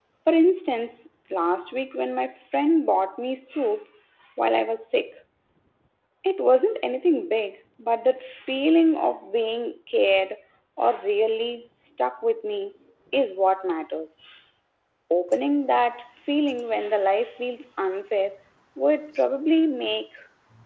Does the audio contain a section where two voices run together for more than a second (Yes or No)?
No